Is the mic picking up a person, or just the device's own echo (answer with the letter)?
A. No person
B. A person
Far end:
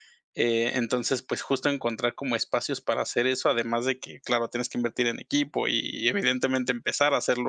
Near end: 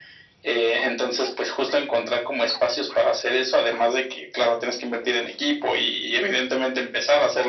A